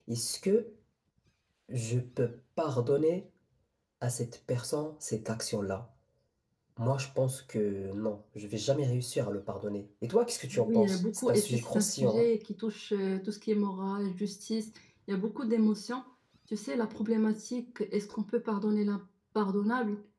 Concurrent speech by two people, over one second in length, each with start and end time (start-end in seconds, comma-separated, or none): 10.7-12.2